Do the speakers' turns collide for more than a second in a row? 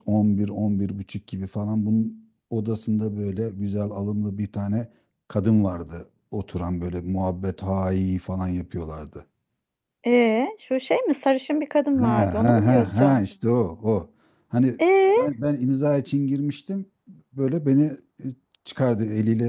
Yes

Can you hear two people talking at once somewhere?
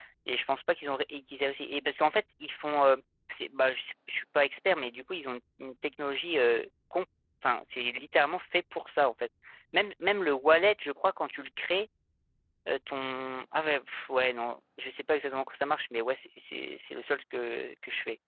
No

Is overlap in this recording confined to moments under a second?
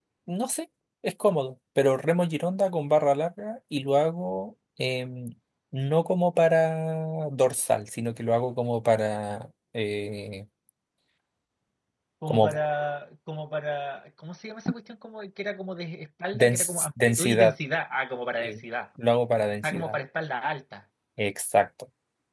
No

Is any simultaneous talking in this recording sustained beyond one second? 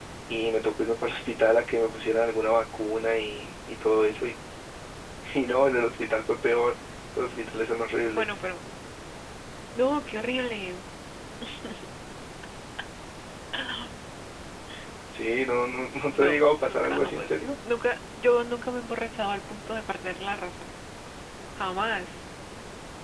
Yes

